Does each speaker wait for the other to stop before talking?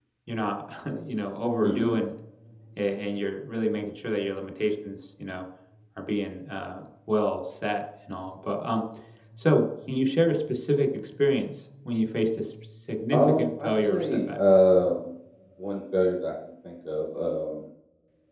No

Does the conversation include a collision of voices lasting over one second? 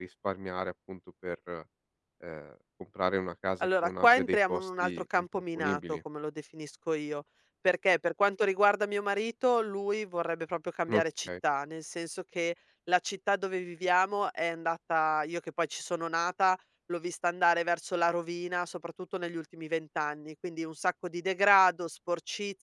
Yes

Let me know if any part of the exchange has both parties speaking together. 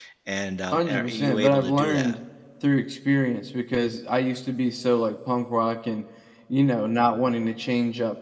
Yes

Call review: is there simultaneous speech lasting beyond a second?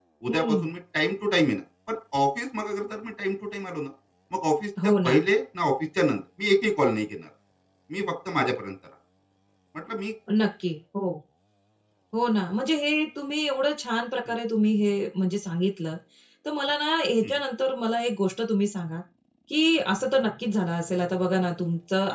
No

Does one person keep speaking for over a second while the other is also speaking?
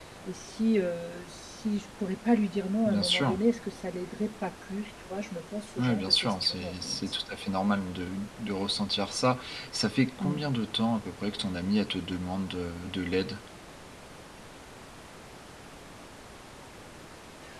Yes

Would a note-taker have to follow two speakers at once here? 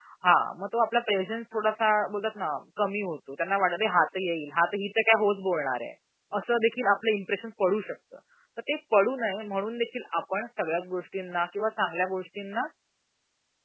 No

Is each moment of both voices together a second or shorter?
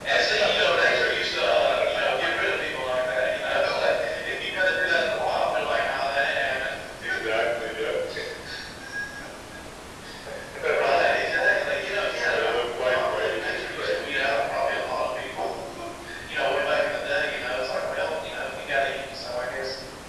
No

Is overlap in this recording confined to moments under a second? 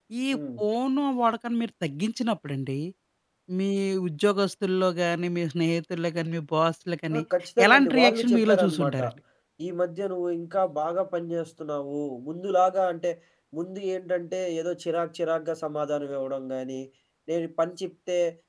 No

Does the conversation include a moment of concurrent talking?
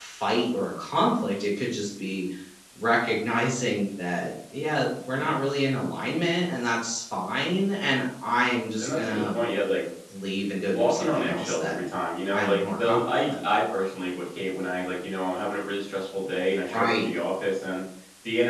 Yes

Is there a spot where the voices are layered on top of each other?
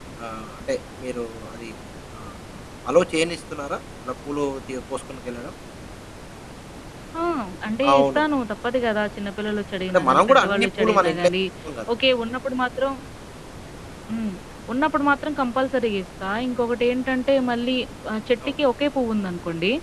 Yes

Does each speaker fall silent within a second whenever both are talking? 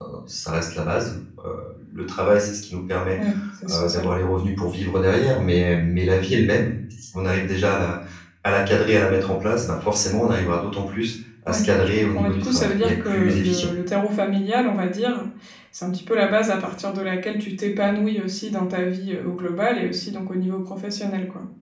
No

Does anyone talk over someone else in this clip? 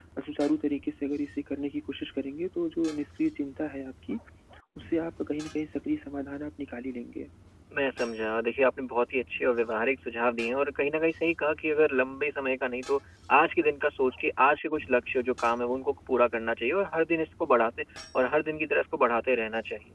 No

